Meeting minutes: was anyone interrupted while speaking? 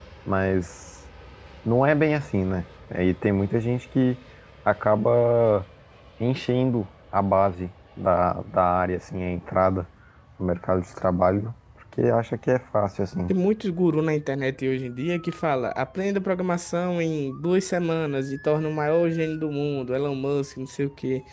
No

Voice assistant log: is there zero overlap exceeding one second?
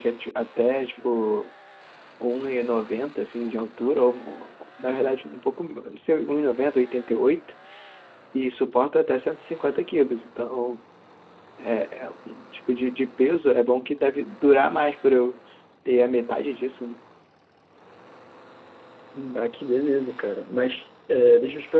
Yes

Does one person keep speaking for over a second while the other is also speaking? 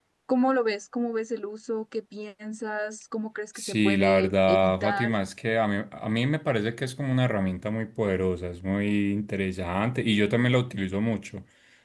Yes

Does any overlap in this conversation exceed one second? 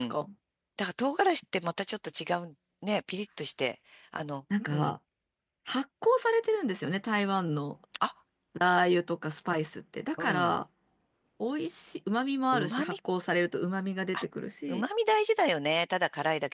No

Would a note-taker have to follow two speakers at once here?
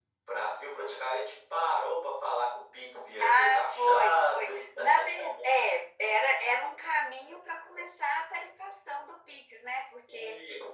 Yes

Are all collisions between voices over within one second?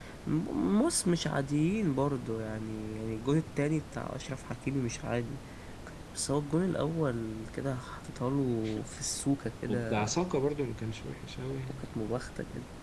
Yes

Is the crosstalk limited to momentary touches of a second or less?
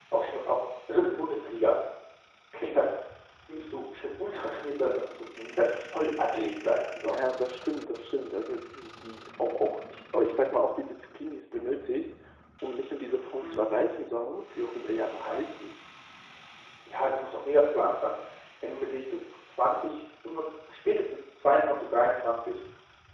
Yes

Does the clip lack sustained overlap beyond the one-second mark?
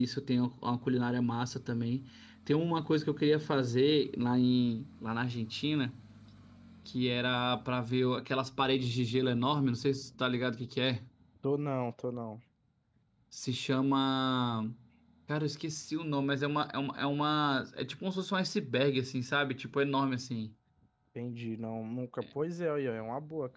Yes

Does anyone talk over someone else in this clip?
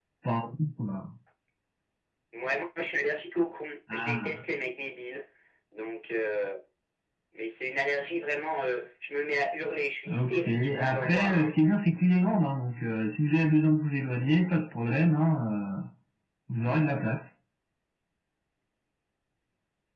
Yes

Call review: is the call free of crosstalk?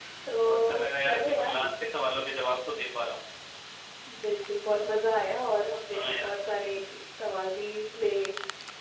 No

